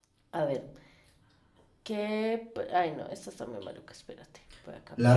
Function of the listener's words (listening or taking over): taking over